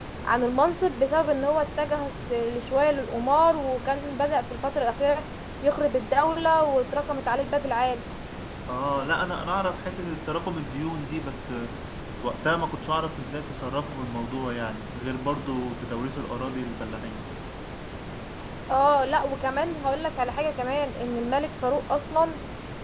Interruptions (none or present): none